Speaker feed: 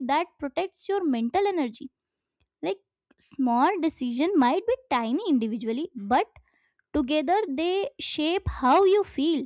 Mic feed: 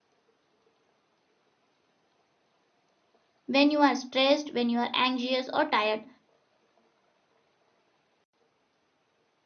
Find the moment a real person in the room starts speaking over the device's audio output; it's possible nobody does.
3.5 s

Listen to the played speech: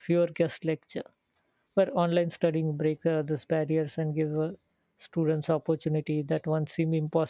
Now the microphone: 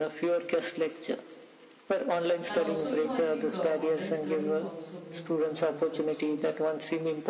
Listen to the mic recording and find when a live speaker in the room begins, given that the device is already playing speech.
2.5 s

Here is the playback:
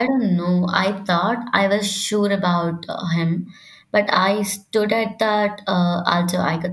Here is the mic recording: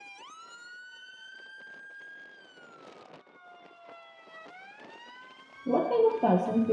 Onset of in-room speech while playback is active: 5.6 s

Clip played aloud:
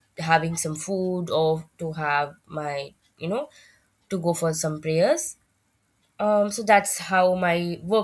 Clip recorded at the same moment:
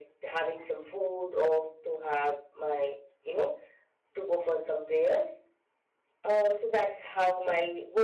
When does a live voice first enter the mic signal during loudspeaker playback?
none

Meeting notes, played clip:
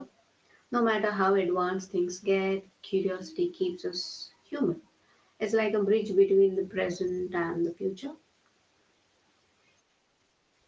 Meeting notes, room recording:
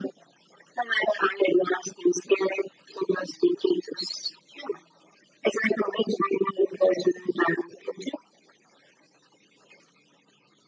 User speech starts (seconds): none

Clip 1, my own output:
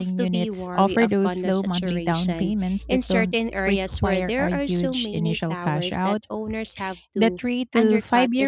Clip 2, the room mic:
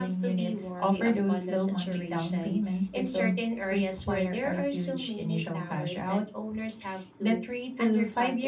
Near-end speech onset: none

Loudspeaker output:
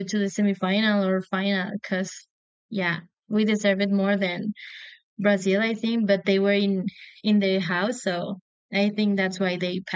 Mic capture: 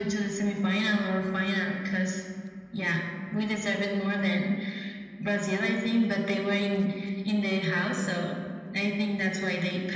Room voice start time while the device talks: none

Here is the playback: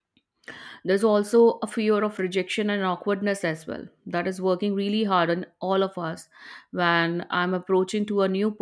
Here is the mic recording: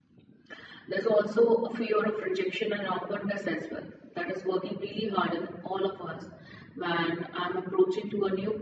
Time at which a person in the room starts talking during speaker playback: none

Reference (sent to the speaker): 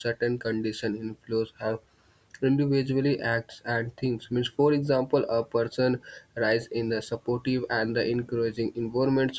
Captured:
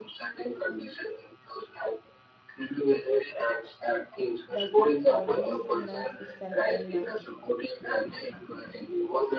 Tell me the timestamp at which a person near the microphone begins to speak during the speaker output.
4.5 s

